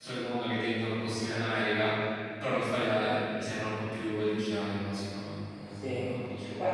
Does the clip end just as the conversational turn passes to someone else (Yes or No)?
Yes